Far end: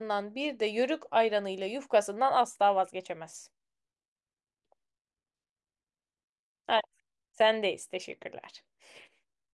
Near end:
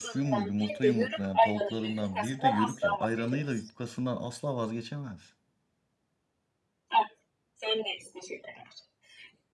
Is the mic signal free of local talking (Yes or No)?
No